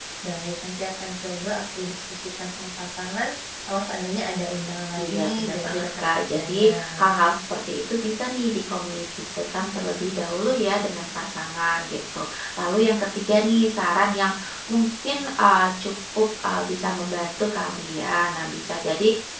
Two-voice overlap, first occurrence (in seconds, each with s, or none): 4.9 s